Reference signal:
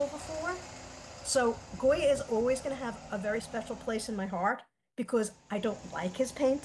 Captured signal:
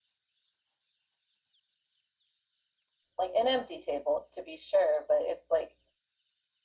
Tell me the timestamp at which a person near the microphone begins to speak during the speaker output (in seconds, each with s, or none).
3.2 s